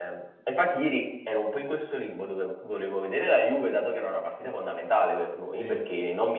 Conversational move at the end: listening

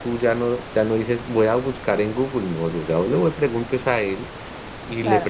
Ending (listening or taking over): listening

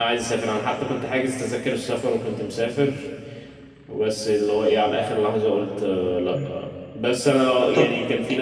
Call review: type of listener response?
listening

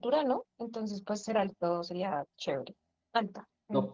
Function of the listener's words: taking over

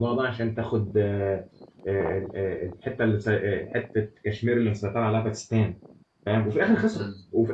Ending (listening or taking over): listening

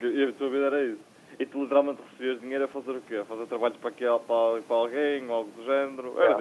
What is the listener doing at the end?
listening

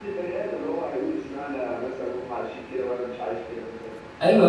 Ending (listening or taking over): taking over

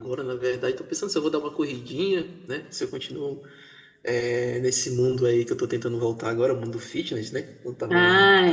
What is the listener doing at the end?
taking over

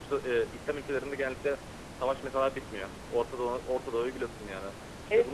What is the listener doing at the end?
listening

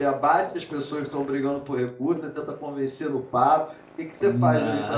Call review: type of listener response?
listening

